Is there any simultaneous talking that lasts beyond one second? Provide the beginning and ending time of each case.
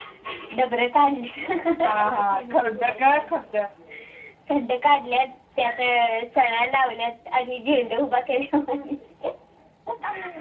1.8-3.2

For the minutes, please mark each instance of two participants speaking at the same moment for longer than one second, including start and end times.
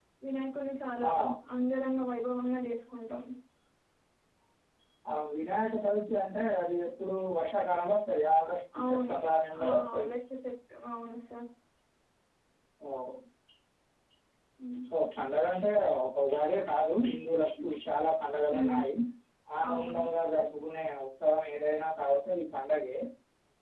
none

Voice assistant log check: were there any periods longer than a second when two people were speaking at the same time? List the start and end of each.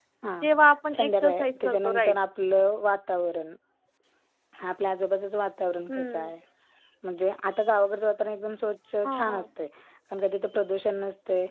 0.9-2.1

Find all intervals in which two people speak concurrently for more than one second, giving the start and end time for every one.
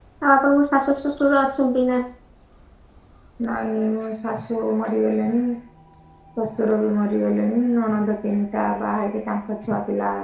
none

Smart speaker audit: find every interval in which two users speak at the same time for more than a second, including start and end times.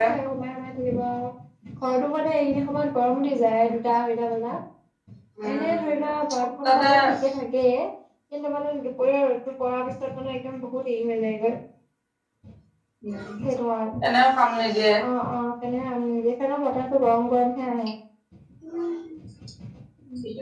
none

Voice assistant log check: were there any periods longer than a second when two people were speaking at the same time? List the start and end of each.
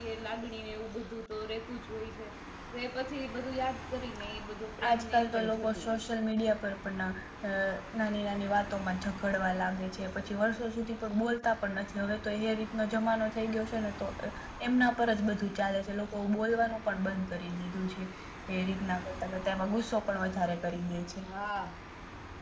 4.9-6.1

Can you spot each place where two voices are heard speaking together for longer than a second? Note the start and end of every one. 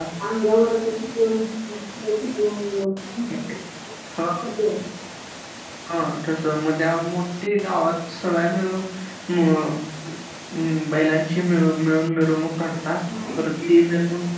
none

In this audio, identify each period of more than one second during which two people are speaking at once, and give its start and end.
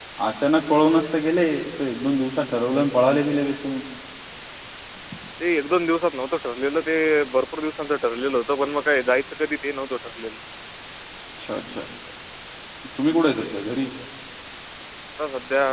none

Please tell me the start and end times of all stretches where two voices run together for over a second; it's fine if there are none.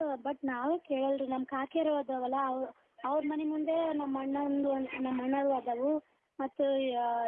none

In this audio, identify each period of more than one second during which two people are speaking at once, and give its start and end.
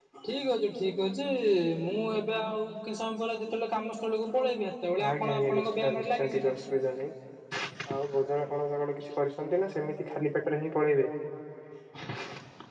5.1-6.5

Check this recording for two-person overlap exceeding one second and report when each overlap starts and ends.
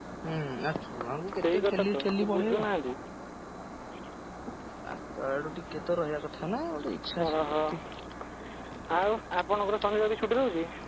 1.4-2.6

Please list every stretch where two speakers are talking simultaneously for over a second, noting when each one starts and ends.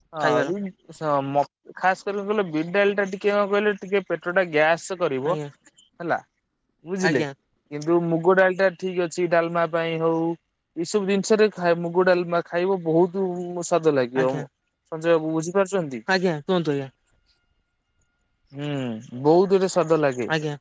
none

